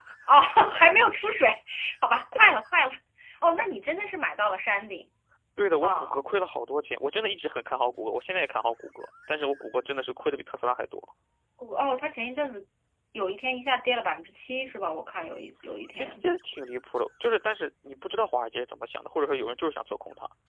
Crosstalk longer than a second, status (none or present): none